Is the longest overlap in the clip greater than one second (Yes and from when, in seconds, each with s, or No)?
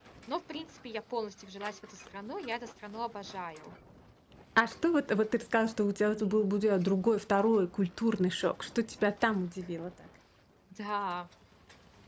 No